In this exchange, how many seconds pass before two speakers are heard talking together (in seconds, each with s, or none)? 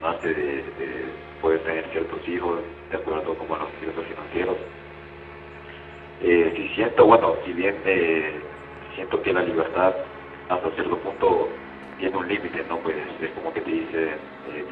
none